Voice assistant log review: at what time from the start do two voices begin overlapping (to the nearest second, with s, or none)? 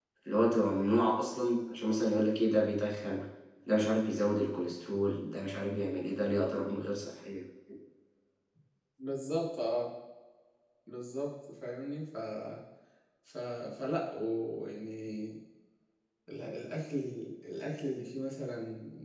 none